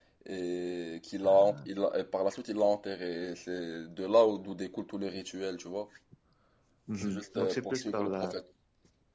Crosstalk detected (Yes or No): Yes